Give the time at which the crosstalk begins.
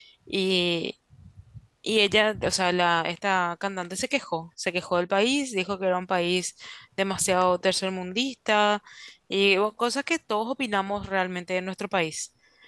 none

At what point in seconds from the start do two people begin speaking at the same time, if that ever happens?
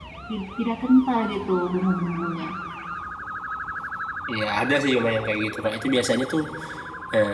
none

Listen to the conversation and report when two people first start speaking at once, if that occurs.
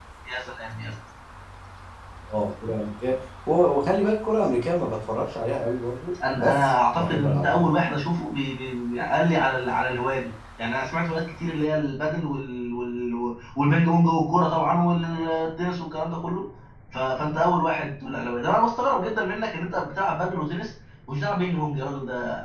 6.1 s

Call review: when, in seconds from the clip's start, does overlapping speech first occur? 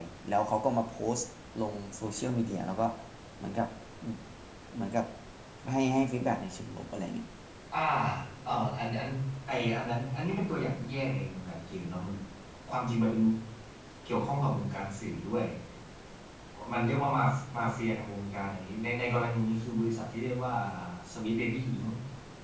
none

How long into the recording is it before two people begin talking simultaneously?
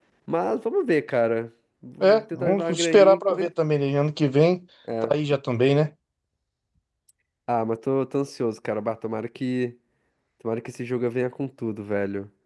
2.0 s

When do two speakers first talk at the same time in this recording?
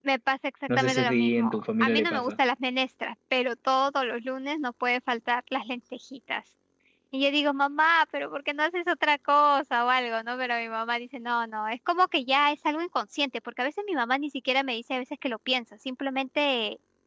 0.8 s

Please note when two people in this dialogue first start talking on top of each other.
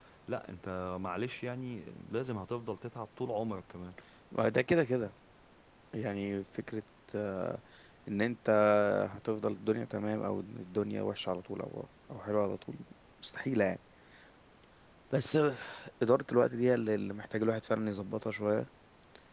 none

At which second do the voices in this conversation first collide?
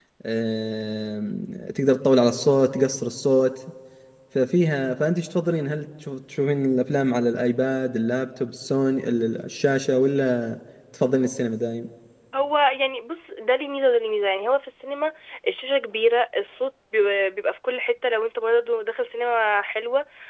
none

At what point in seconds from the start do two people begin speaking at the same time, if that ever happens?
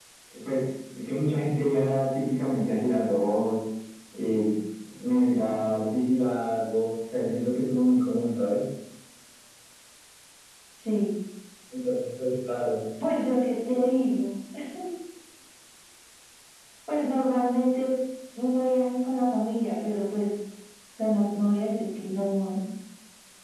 none

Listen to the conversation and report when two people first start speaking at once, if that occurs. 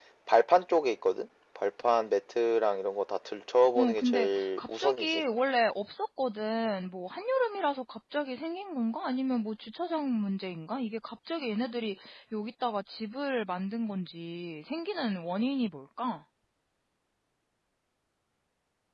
3.8 s

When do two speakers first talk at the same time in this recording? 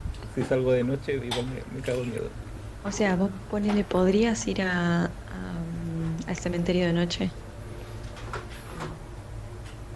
none

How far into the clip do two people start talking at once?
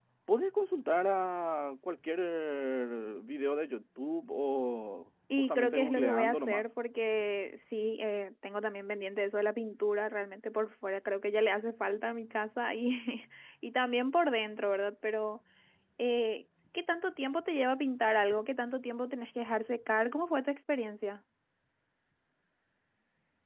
5.3 s

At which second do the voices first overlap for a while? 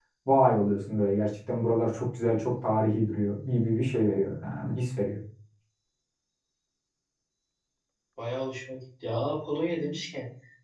none

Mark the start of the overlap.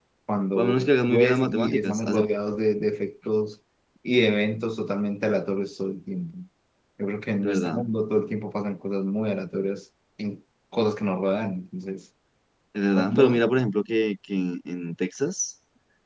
0.6 s

